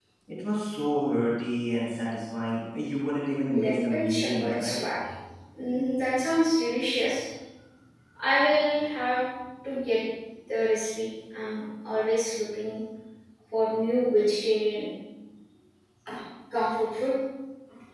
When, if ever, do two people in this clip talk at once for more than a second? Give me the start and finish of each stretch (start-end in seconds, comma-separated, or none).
3.6-4.8